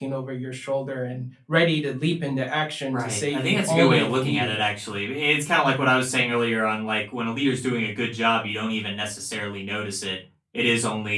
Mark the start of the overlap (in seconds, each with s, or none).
2.9 s